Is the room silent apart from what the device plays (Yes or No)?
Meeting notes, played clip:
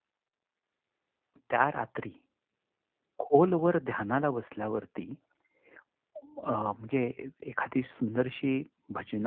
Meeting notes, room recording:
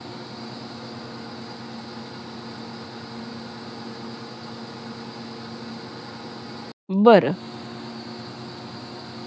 No